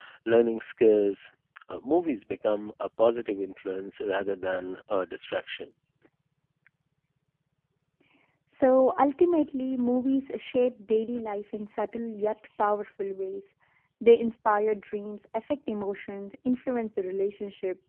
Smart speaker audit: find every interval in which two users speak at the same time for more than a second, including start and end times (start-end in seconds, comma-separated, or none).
none